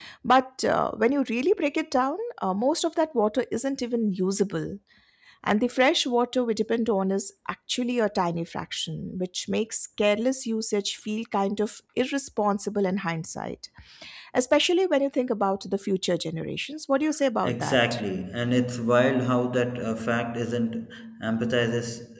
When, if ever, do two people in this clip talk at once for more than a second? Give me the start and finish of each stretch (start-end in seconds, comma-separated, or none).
none